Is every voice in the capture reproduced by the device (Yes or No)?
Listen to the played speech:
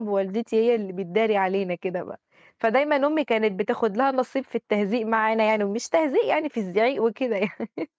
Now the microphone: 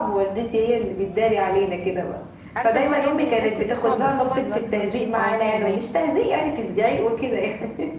No